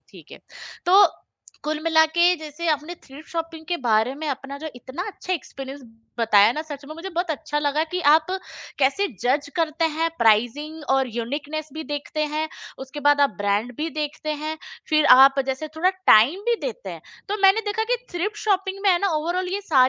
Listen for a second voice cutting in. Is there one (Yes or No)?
No